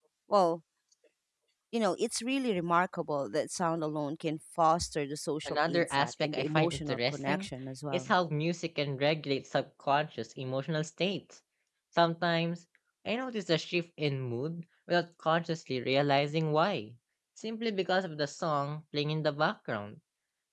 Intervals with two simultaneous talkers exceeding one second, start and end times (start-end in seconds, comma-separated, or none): 5.5-7.5